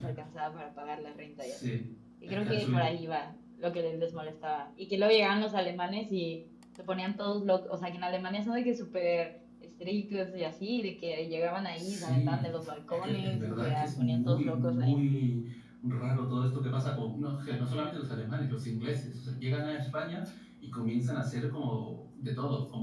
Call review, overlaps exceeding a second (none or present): present